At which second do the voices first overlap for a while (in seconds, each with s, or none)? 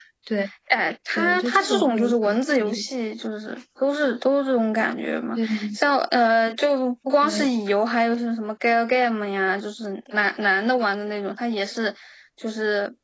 1.2 s